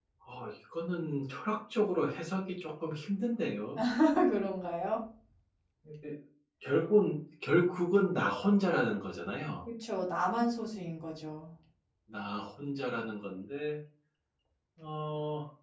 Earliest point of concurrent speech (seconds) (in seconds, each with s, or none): none